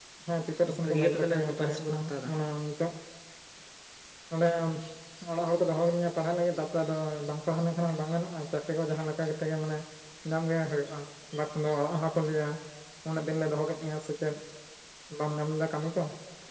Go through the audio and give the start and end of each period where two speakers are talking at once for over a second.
0.8-2.3

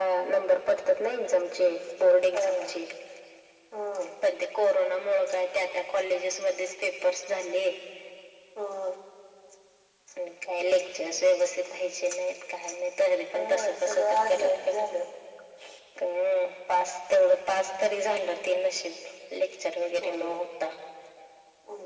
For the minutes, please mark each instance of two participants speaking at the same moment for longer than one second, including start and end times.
13.3-14.8

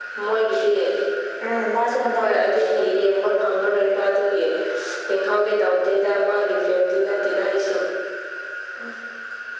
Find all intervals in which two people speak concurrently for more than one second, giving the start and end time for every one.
2.1-3.7

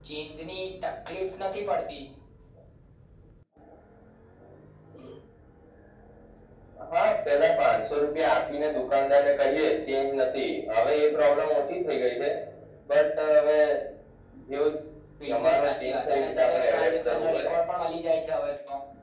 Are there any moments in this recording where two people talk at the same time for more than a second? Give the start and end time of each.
15.2-17.5

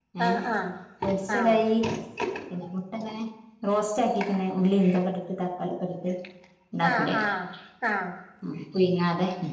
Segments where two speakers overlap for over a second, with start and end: none

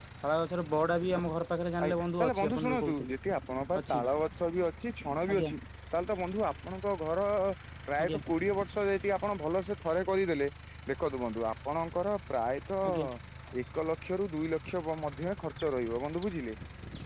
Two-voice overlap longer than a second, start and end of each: 1.8-3.1

